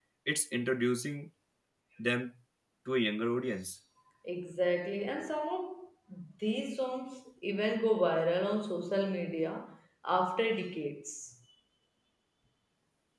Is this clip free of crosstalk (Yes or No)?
Yes